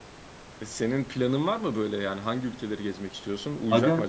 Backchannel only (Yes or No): No